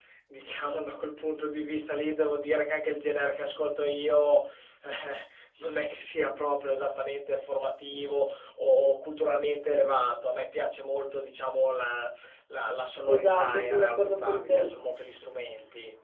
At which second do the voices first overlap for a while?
13.1 s

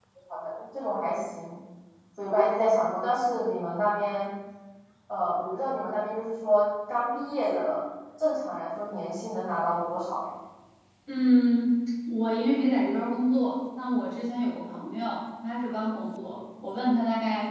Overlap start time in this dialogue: none

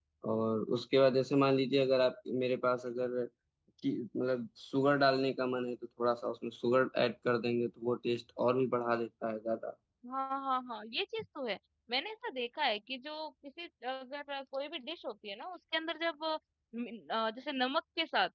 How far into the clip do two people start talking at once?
none

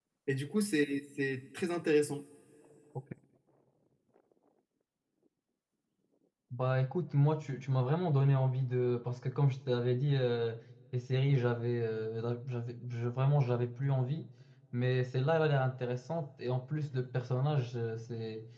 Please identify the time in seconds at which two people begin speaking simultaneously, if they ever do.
none

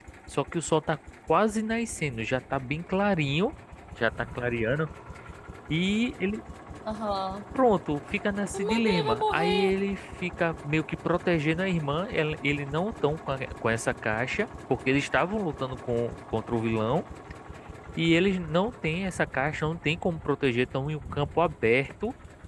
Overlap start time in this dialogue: 8.5 s

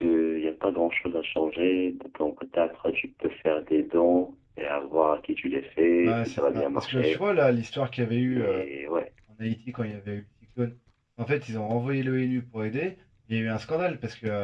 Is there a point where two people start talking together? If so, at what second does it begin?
6.0 s

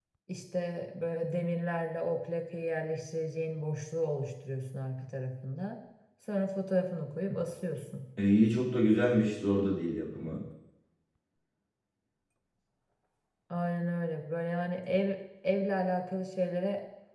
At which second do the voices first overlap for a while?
none

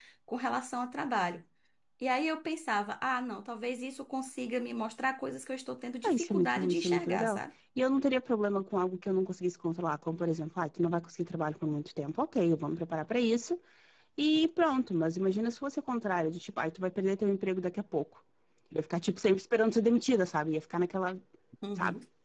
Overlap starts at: 6.0 s

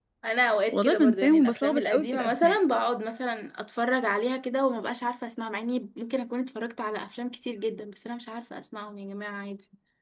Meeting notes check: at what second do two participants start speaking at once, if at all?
0.7 s

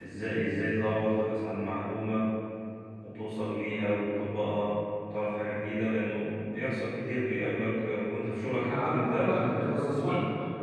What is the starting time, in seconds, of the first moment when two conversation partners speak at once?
8.4 s

